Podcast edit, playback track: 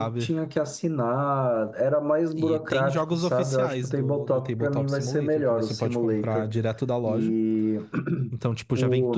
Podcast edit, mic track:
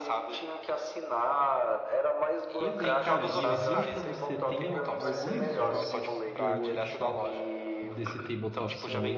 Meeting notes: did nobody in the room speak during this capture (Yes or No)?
No